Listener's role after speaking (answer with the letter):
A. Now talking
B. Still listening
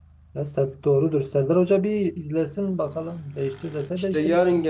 A